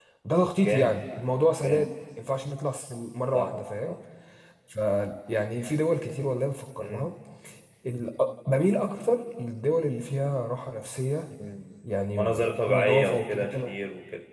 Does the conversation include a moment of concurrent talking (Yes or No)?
Yes